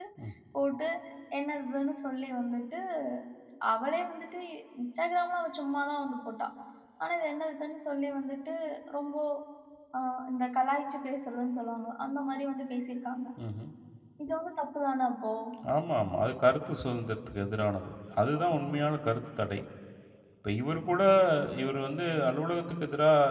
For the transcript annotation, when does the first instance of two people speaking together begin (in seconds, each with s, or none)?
none